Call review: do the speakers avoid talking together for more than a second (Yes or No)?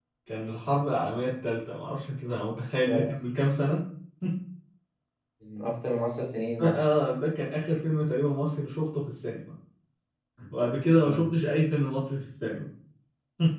Yes